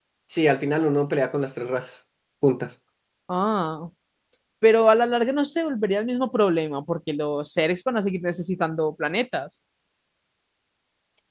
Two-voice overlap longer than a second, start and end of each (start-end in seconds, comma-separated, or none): none